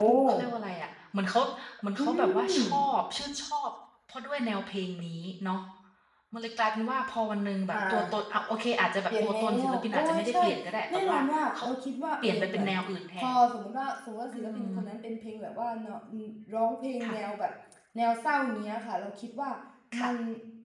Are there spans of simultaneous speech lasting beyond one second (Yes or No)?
Yes